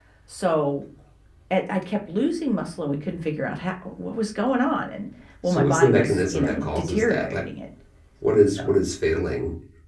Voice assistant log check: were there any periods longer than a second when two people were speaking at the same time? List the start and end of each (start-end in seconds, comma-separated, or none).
5.4-7.5